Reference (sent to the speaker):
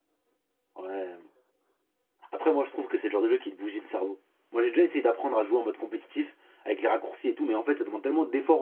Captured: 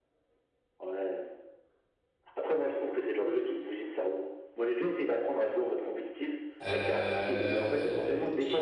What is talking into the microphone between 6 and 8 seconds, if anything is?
both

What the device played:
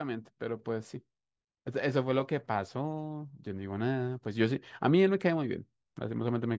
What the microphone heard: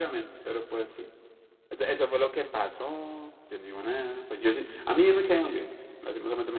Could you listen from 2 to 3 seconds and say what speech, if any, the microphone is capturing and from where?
echo only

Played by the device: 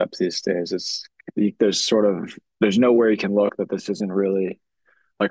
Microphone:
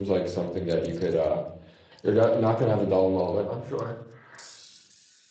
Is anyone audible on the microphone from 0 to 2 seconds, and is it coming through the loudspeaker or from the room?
user only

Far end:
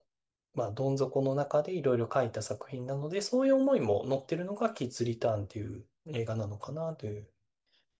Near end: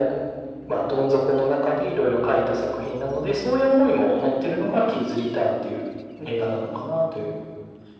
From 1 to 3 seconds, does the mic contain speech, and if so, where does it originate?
echo only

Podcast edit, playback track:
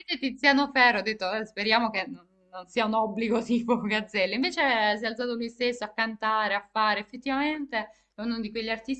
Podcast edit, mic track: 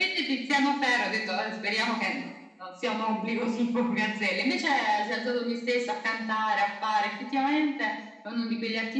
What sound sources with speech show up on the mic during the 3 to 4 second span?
echo only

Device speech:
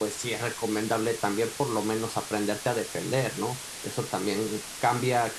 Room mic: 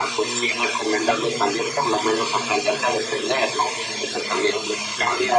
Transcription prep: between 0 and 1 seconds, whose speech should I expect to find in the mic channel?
both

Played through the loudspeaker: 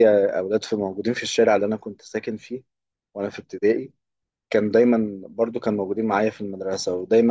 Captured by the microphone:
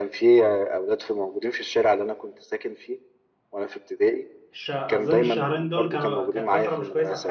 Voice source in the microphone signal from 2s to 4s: echo only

